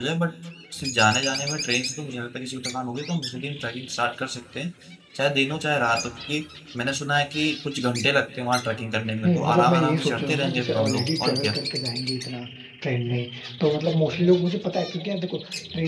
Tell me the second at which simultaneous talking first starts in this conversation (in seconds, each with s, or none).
9.2 s